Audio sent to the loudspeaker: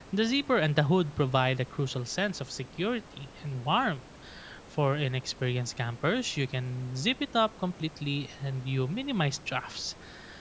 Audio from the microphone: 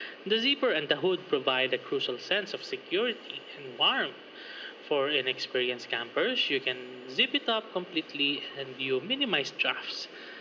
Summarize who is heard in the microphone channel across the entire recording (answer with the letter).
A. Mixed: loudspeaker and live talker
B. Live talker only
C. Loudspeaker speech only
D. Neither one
C